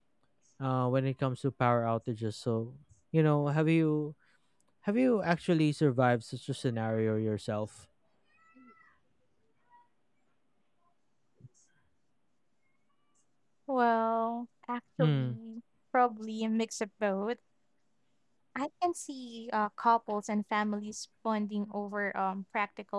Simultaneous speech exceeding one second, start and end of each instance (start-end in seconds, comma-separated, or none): none